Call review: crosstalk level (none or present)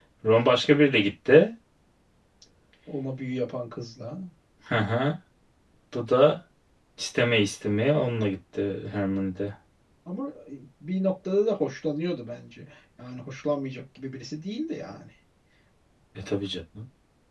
none